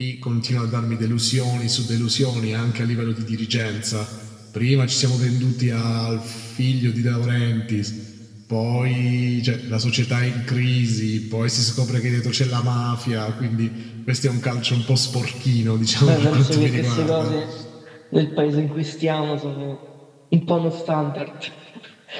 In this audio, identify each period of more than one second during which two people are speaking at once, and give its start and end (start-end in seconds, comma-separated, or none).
16.0-17.4